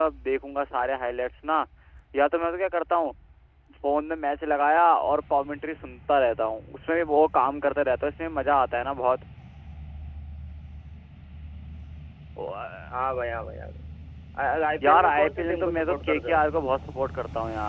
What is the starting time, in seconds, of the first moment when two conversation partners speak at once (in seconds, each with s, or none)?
14.9 s